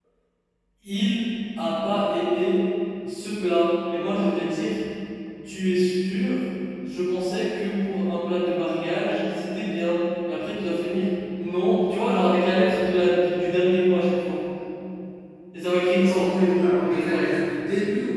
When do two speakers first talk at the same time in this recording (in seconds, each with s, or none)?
16.0 s